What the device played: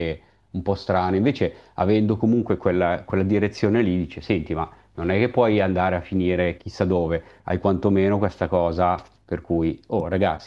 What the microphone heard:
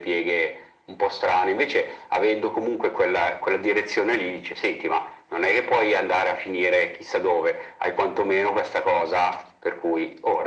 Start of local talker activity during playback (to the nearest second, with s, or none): none